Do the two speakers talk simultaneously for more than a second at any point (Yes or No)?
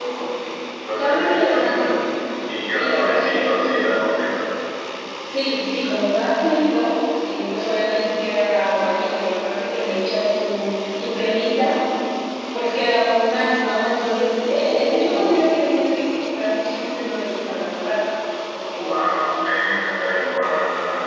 Yes